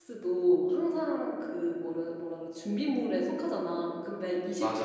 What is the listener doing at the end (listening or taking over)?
listening